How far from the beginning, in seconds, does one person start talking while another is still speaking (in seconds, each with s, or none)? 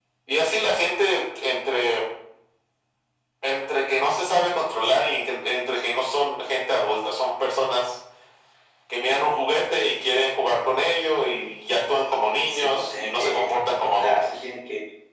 12.5 s